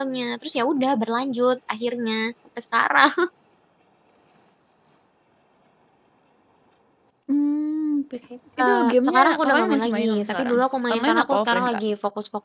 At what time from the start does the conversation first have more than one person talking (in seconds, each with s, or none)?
8.6 s